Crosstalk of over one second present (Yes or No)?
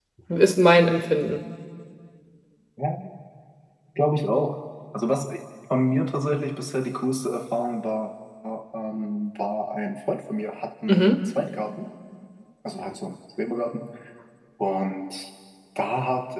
No